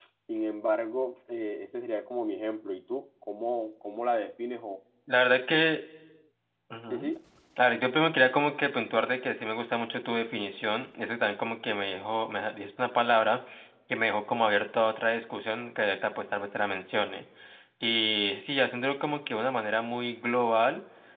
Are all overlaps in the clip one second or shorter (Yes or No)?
Yes